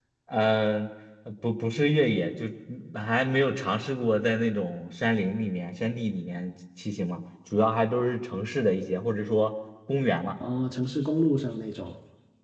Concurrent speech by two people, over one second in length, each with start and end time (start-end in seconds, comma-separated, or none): none